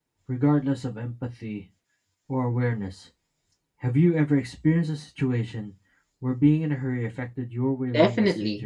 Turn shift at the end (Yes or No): Yes